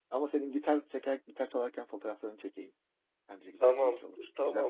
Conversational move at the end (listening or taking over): taking over